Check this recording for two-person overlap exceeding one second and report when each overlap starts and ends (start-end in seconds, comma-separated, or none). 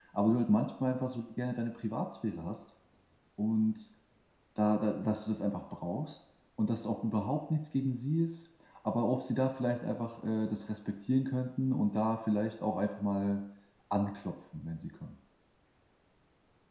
none